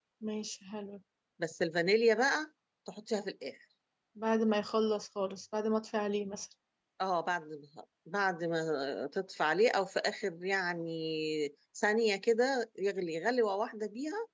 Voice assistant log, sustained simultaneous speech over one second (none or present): none